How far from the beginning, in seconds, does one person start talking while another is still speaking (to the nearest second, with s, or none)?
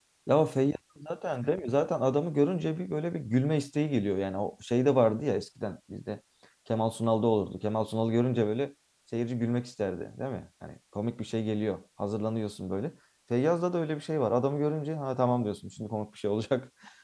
none